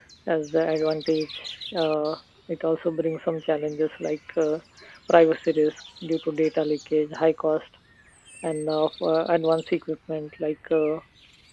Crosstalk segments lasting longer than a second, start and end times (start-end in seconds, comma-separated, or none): none